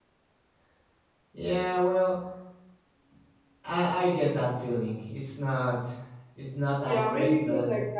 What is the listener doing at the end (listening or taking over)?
taking over